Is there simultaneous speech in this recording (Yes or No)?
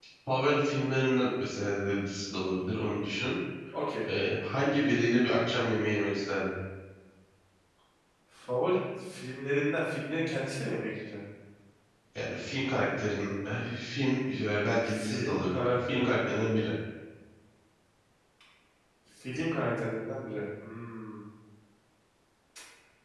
Yes